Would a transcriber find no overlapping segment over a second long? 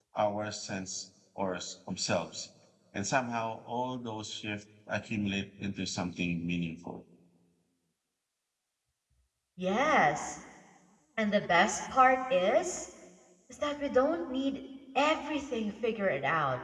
Yes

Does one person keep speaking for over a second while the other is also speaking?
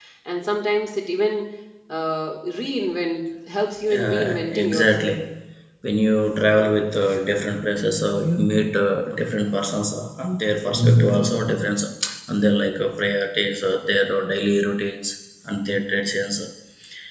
Yes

